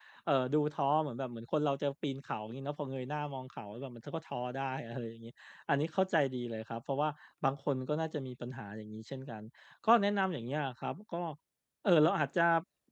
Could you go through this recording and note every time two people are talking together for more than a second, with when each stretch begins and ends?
none

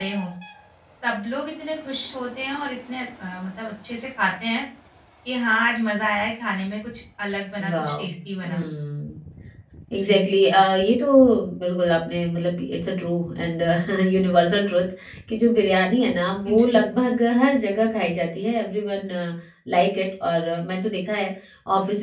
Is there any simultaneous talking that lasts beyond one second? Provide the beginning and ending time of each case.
none

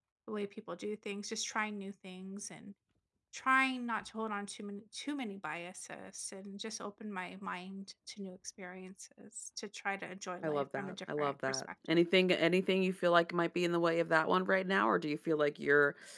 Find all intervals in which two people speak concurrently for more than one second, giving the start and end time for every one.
10.4-12.0

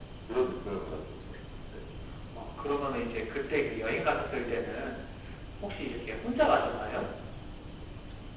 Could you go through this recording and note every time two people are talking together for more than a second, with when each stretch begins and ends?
none

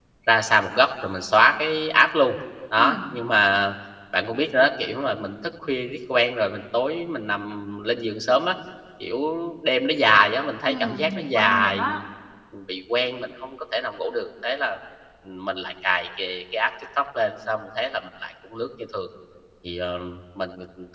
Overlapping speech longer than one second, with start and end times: 10.6-12.0

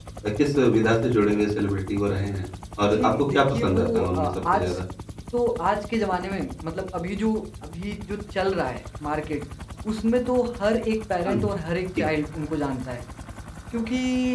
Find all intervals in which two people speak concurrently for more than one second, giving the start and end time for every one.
2.9-4.8

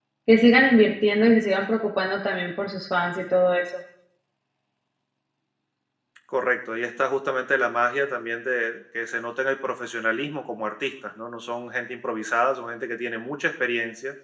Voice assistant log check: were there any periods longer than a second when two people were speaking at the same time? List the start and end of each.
none

